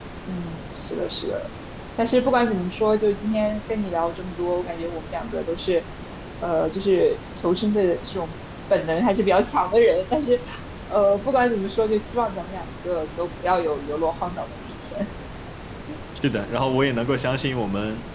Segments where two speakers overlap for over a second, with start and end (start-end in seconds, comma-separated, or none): none